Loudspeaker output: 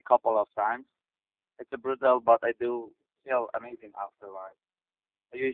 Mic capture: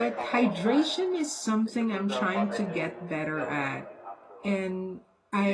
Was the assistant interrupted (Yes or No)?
Yes